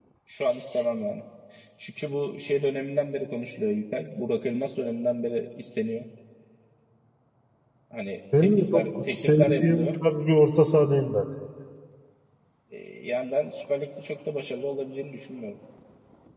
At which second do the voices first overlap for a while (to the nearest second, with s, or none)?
8 s